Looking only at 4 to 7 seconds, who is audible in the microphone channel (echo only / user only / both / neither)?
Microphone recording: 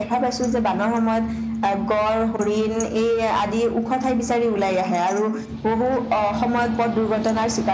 echo only